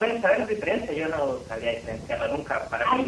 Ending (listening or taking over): listening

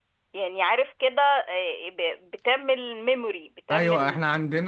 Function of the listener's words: taking over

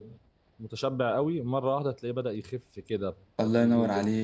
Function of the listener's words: taking over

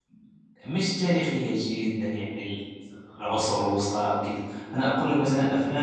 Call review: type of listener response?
listening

